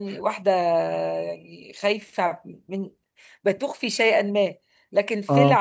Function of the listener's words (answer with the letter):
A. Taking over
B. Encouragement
B